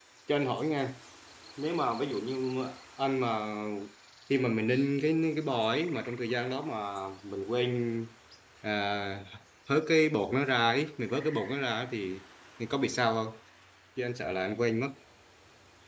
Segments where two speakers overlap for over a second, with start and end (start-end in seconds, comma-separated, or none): none